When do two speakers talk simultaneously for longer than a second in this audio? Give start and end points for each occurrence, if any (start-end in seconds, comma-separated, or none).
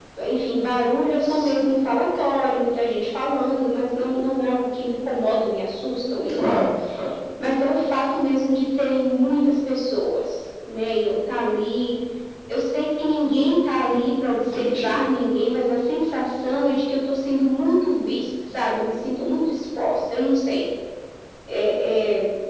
none